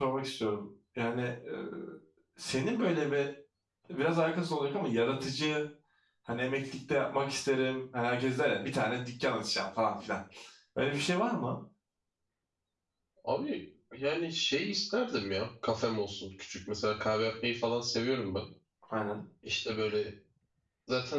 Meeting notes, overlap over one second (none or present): none